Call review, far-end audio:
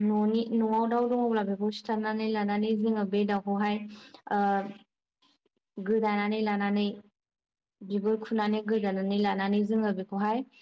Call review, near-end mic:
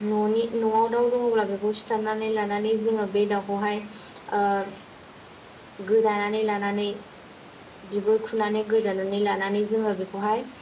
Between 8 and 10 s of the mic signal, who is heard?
echo only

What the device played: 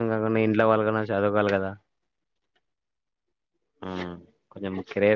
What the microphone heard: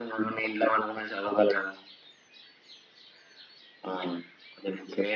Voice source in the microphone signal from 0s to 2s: echo only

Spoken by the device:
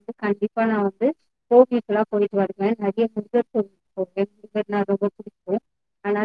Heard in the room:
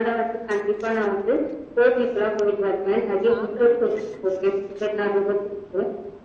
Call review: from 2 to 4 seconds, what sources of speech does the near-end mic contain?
both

